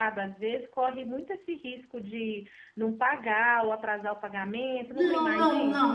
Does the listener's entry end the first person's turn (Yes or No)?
Yes